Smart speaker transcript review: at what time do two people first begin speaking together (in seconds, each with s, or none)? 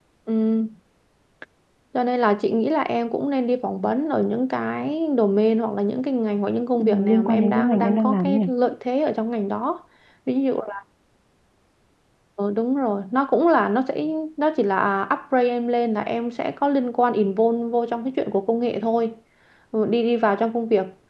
6.7 s